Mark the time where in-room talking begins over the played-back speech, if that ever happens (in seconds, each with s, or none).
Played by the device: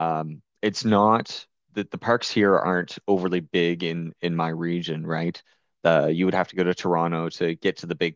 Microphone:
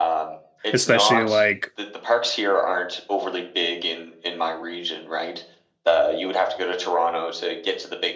0.7 s